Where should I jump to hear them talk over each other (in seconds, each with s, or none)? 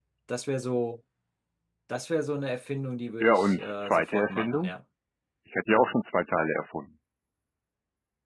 3.2 s